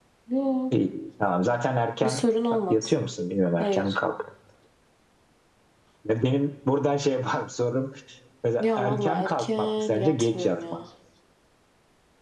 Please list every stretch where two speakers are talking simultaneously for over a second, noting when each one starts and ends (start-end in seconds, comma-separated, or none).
8.6-10.6